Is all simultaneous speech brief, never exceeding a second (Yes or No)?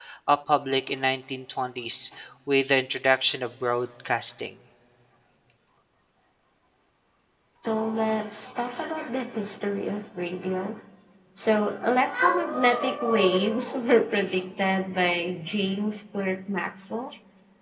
Yes